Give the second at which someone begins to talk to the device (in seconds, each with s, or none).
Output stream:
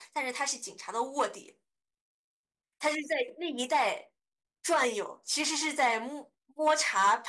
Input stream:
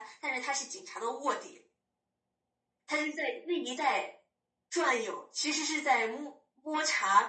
none